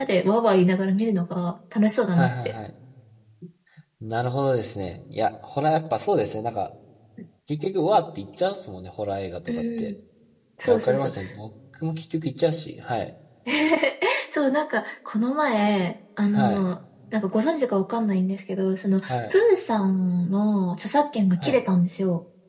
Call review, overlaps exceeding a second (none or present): none